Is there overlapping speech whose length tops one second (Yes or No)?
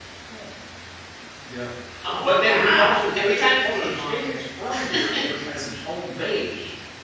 Yes